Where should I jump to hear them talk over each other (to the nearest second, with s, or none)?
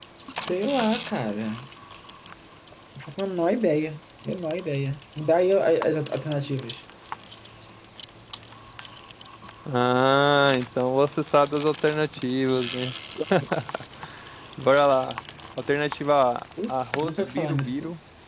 17 s